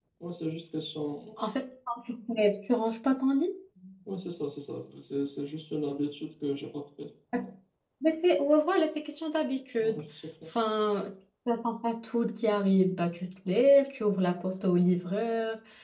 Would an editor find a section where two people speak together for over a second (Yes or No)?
No